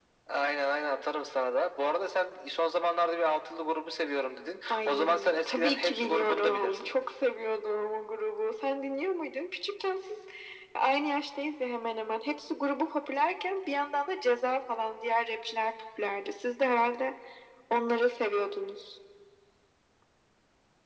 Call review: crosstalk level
present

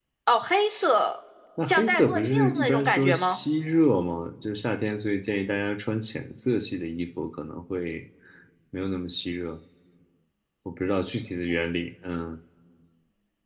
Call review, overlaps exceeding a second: present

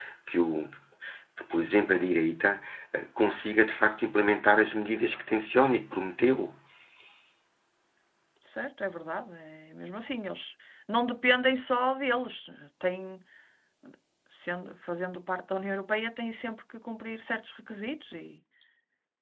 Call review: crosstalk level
none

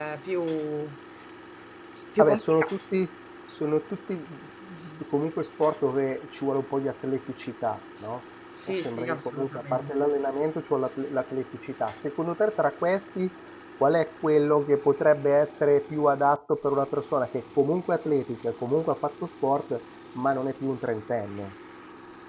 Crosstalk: present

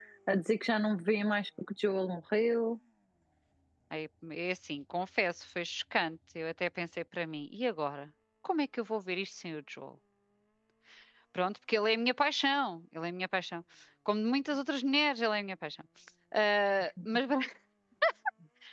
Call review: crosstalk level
none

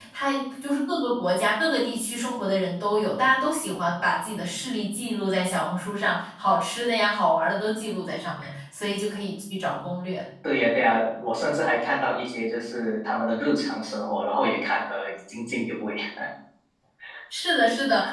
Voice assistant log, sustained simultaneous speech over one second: none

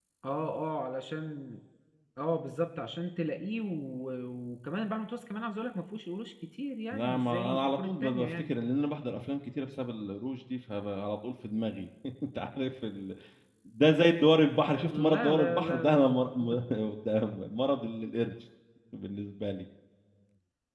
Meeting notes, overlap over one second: present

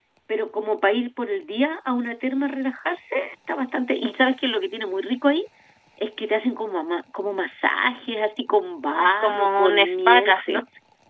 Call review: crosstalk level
present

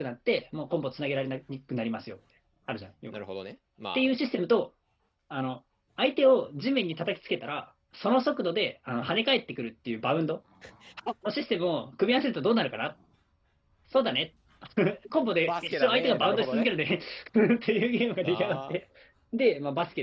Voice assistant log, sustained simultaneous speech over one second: present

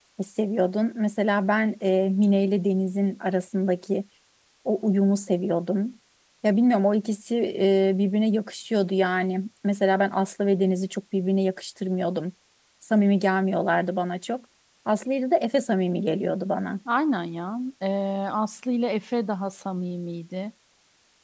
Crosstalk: none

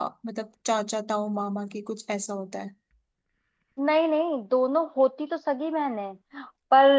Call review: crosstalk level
none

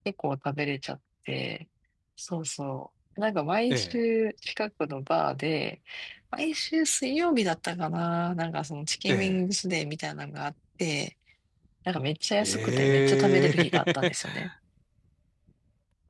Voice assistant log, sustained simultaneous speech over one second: present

